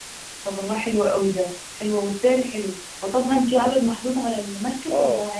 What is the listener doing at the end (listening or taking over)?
taking over